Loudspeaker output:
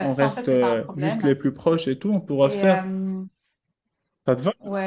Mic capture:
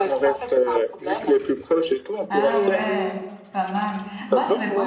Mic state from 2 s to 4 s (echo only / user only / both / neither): both